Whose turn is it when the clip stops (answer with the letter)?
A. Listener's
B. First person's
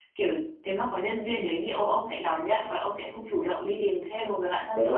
A